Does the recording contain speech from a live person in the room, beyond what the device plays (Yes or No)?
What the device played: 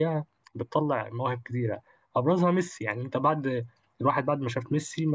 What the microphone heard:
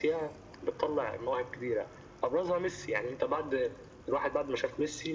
No